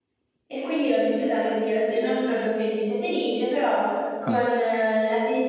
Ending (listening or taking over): listening